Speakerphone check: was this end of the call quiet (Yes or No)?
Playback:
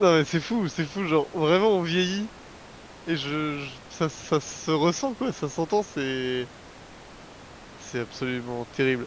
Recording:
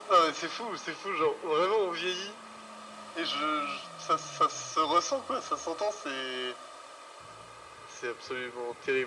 Yes